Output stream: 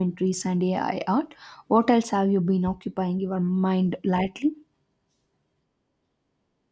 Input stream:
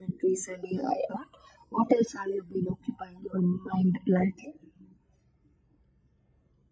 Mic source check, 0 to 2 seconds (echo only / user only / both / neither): echo only